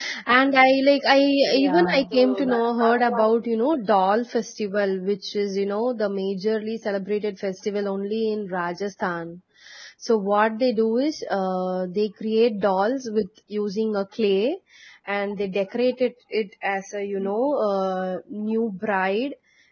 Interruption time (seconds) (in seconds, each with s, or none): 1.4 s